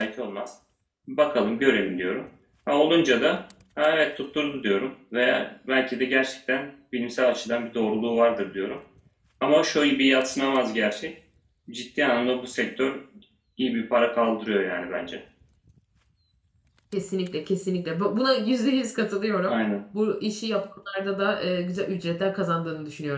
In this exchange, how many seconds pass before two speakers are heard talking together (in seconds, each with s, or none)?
none